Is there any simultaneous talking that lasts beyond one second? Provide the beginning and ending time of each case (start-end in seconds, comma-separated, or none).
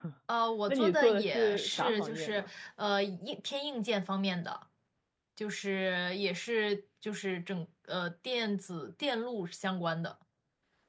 0.7-2.5